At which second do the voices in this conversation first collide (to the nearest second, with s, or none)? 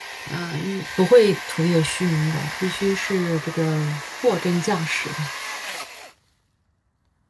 none